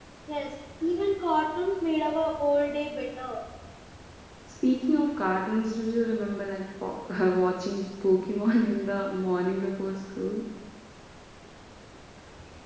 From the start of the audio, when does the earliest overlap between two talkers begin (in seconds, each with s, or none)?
none